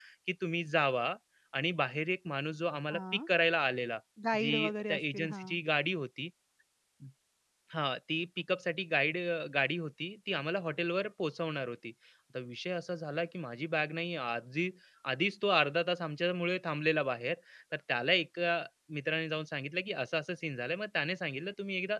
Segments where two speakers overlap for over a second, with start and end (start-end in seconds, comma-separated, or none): 4.4-5.6